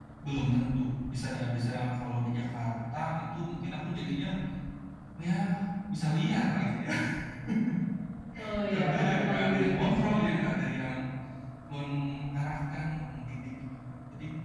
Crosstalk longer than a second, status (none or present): present